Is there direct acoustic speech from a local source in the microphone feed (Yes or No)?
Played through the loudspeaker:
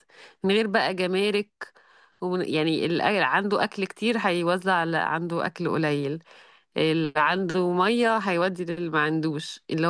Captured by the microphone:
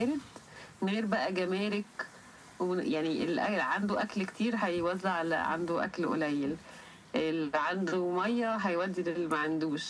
No